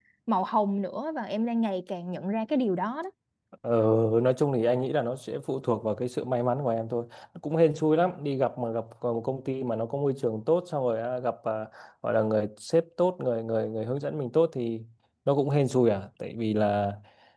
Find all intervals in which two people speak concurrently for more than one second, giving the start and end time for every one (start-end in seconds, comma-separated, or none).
none